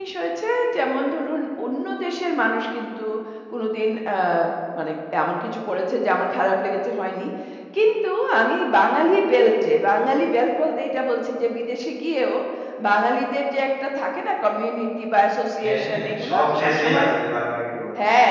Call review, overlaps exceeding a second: present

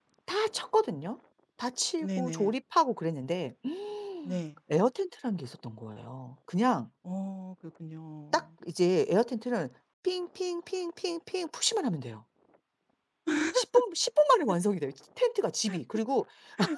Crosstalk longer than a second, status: none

